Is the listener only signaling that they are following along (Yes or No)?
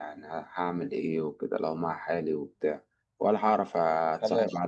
Yes